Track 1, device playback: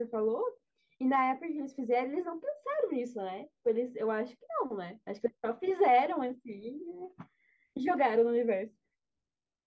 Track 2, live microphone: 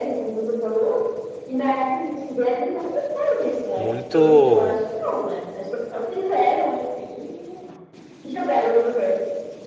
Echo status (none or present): present